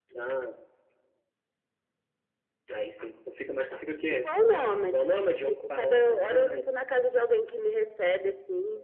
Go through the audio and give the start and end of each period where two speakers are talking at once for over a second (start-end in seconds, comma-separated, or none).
4.1-6.7